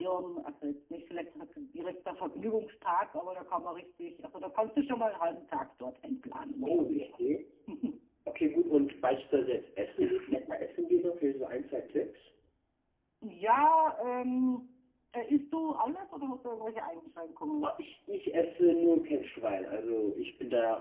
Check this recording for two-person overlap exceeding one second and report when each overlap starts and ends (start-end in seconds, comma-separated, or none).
none